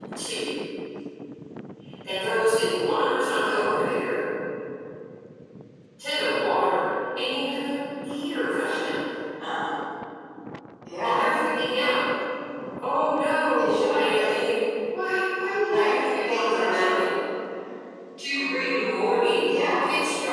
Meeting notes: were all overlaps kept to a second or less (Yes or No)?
No